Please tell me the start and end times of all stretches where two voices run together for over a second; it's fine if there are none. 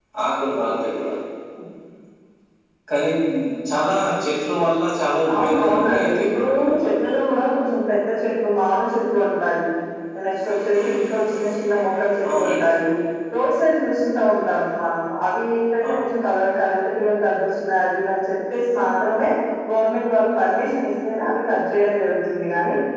5.4-6.9

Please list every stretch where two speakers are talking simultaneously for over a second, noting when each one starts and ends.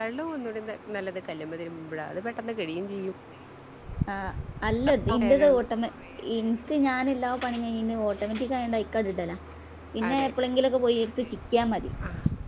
none

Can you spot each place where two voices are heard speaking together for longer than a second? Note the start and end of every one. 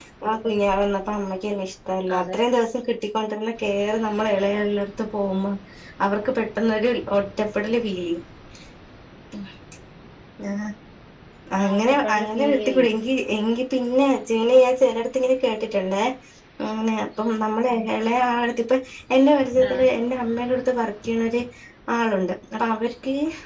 11.6-12.9

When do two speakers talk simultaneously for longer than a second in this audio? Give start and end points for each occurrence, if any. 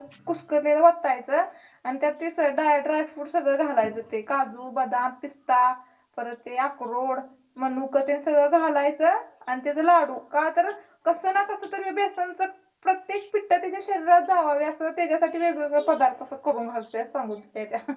none

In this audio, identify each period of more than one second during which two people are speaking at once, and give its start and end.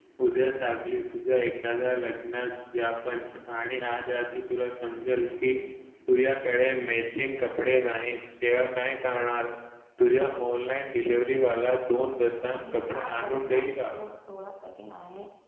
12.4-13.9

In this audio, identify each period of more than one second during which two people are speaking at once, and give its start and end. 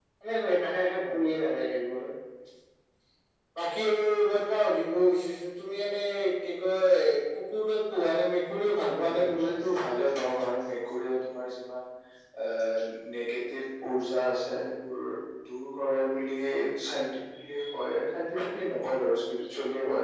none

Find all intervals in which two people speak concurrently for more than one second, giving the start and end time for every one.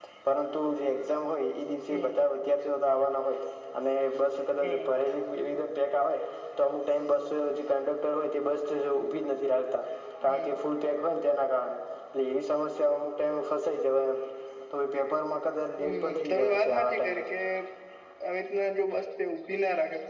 15.8-17.2

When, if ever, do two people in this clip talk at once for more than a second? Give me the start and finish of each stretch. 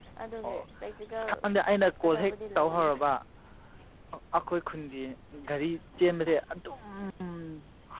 1.1-2.9

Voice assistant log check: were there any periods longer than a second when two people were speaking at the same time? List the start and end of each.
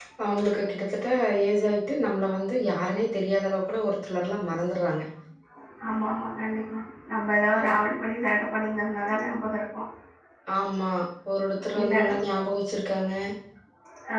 none

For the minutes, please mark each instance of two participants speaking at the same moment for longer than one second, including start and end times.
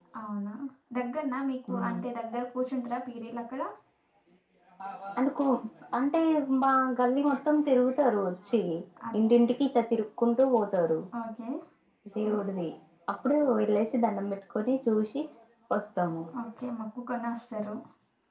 none

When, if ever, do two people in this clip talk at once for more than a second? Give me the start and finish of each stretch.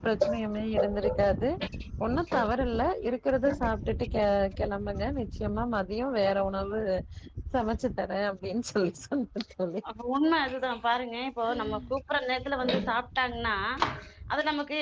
none

